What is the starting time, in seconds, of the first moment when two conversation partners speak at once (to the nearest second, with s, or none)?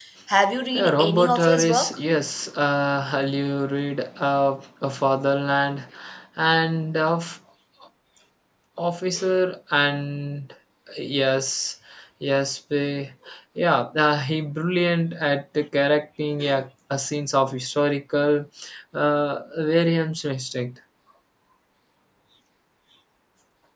1 s